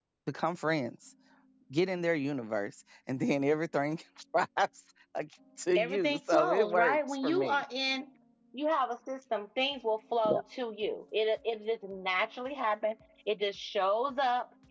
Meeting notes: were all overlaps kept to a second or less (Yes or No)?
No